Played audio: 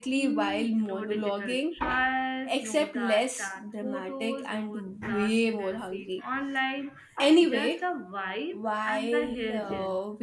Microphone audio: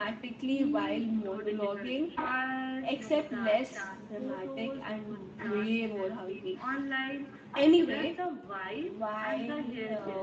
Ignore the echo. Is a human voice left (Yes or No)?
No